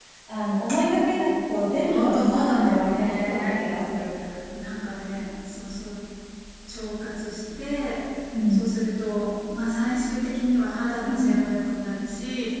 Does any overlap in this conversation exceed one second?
Yes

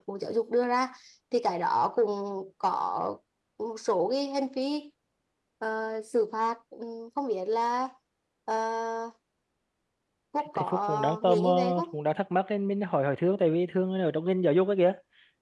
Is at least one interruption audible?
Yes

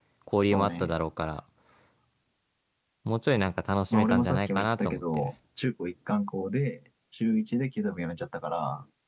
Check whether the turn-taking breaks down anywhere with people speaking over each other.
Yes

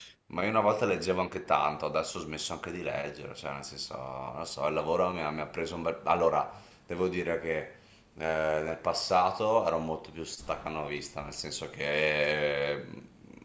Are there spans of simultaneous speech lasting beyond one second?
No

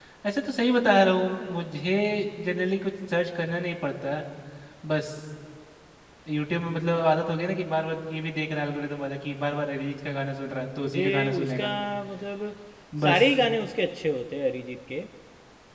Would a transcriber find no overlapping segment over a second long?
No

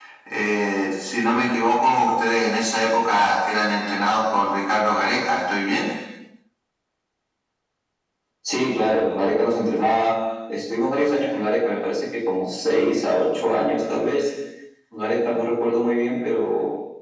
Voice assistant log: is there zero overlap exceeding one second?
Yes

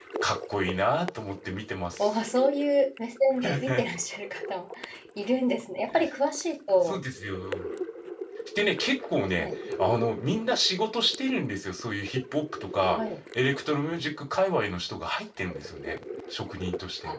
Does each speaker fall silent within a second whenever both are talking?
Yes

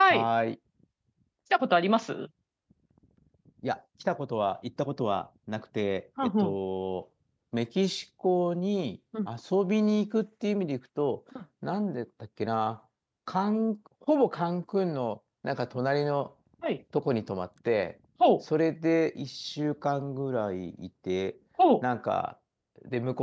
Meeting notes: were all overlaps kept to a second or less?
Yes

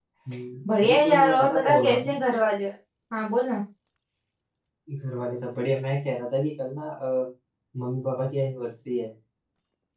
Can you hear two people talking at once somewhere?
Yes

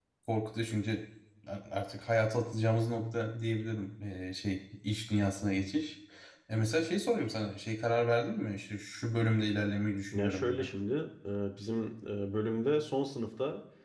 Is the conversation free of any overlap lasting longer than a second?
Yes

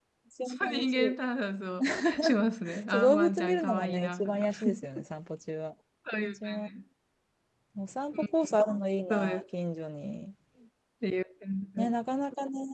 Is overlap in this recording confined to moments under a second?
No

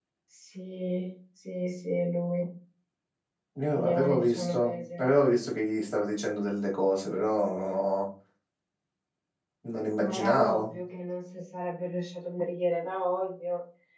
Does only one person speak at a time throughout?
No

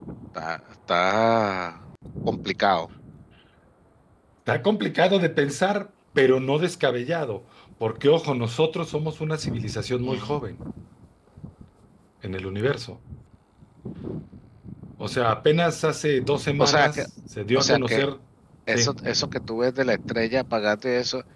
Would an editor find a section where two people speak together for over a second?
No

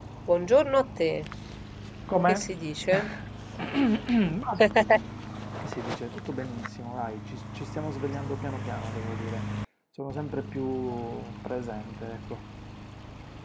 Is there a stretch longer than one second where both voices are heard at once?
No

